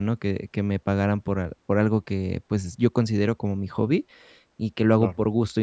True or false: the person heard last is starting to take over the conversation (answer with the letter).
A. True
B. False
B